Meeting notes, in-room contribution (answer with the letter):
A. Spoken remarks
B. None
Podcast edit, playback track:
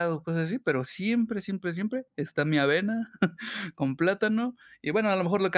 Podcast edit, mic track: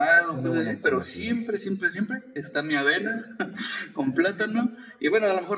A